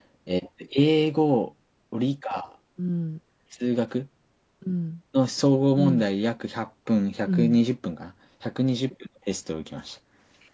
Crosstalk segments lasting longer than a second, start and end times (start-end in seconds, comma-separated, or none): none